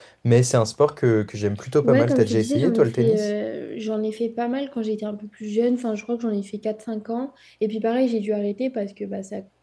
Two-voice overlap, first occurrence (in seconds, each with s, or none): 1.8 s